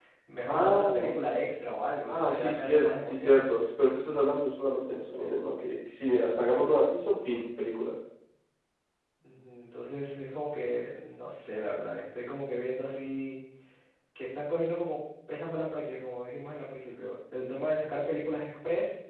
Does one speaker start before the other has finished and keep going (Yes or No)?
Yes